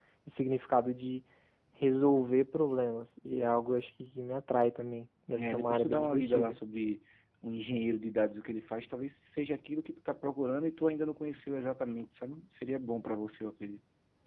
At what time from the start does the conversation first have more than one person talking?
5.3 s

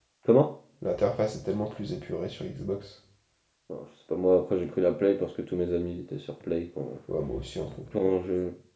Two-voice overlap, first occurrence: none

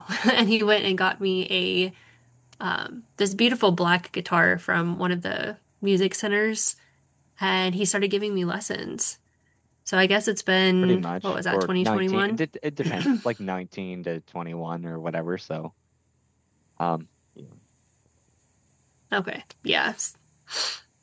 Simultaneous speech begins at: 10.8 s

